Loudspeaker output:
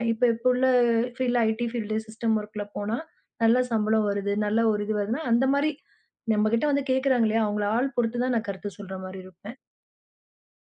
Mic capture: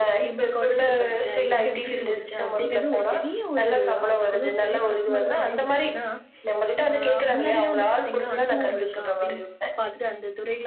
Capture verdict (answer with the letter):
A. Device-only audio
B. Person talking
B